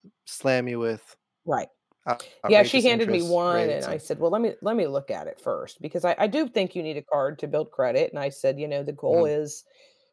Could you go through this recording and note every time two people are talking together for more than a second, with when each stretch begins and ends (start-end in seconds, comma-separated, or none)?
2.5-4.0